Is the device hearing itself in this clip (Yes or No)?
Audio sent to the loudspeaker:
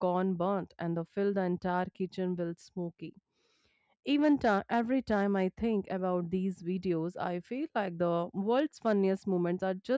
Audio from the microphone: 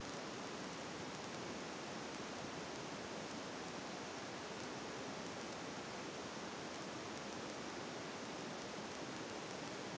No